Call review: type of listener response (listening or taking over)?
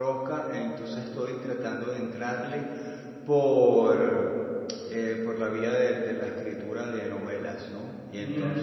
listening